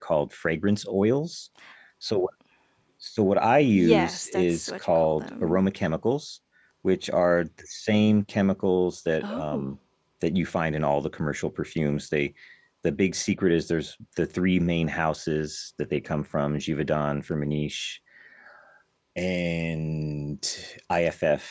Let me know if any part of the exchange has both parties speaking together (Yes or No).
Yes